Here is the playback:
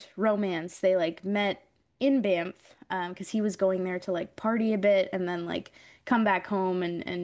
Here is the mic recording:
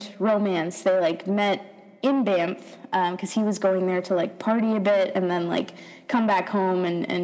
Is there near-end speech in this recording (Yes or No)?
No